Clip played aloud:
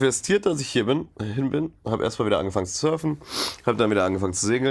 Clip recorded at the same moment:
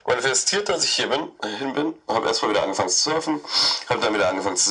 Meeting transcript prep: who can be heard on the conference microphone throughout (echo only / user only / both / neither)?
echo only